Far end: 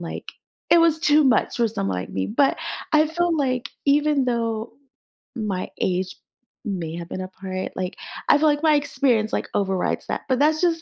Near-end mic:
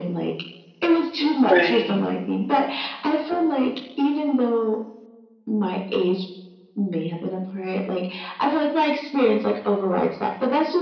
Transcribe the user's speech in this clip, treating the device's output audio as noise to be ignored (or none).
Right.